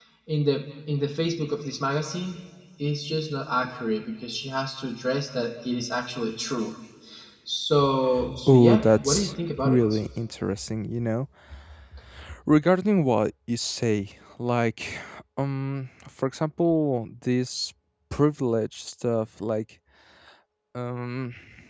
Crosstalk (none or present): present